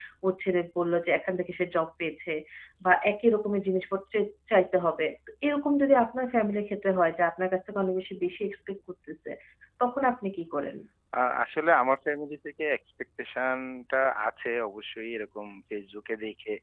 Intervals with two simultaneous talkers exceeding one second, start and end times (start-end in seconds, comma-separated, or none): none